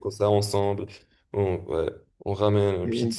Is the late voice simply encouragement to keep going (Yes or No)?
Yes